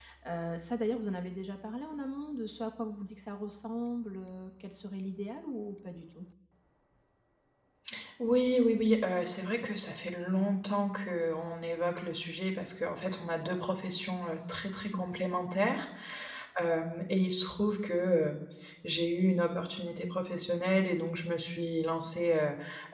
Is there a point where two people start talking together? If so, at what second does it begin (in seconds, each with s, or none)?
none